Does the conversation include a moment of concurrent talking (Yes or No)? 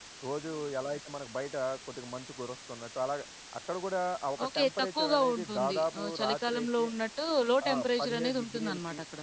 Yes